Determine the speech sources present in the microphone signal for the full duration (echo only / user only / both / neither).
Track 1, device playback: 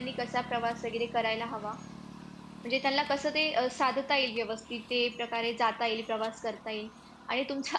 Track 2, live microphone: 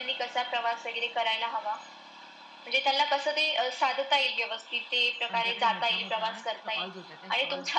both